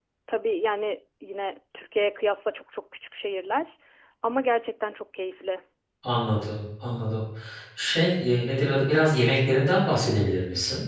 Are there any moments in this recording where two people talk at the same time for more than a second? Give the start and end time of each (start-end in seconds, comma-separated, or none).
none